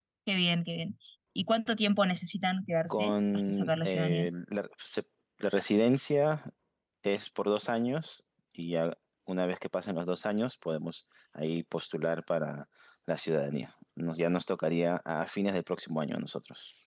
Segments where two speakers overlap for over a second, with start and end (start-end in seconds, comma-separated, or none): 2.9-4.3